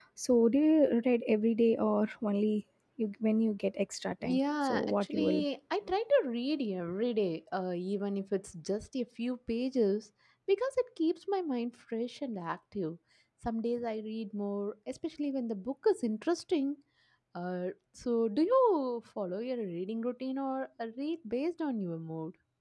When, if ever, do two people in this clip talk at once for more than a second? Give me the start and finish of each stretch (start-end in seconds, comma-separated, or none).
4.2-5.4